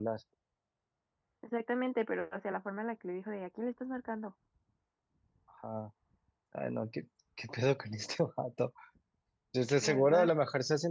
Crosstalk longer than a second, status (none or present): none